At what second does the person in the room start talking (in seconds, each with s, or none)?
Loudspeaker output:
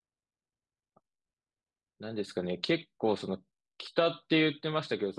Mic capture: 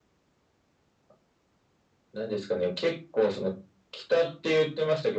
none